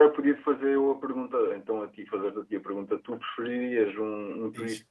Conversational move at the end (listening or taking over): listening